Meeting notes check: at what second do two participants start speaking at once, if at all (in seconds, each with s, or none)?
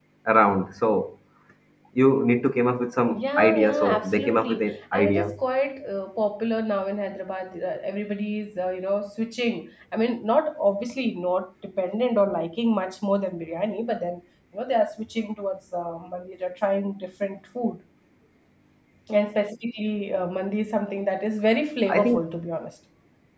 3.2 s